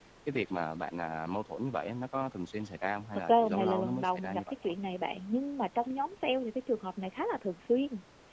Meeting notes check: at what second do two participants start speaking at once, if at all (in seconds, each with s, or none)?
3.3 s